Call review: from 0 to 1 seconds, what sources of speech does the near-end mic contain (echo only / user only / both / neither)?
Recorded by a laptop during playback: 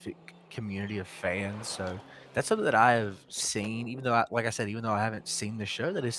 user only